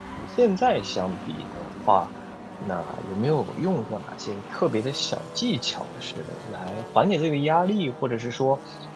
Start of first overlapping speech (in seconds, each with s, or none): none